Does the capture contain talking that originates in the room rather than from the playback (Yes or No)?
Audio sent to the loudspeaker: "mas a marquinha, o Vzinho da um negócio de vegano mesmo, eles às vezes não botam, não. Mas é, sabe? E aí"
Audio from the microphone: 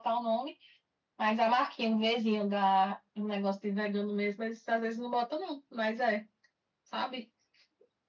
No